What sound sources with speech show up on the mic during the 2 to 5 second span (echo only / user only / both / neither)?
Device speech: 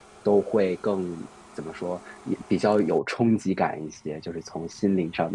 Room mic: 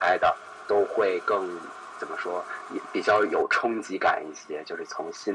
echo only